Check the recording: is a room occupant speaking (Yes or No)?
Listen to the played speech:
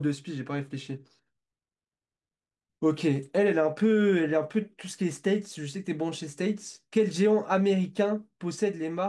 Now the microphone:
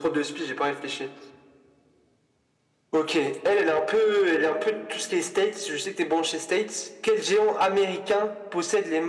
No